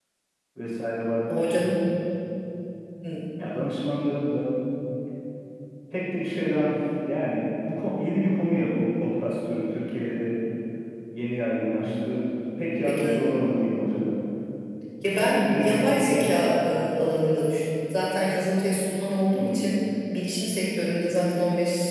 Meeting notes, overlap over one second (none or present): present